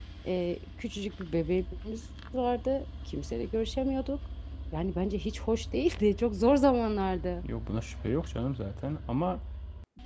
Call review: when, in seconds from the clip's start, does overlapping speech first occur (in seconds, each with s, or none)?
none